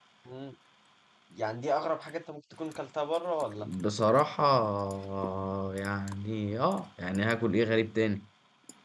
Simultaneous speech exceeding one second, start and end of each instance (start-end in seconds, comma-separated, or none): none